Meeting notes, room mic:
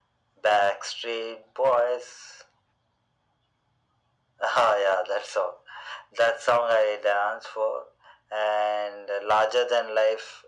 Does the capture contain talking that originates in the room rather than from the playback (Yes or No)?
No